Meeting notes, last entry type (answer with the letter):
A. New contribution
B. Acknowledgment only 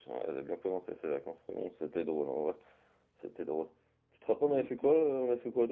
B